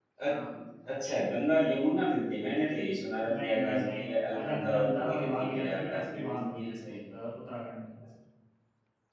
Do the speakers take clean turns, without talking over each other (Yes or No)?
No